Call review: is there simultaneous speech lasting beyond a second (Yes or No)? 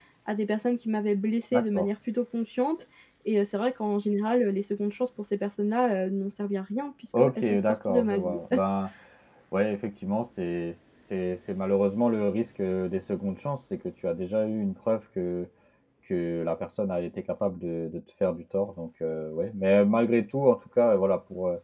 Yes